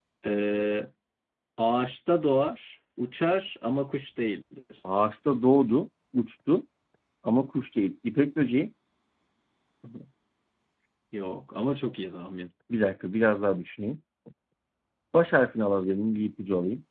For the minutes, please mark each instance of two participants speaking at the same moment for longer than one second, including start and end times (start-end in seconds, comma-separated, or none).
none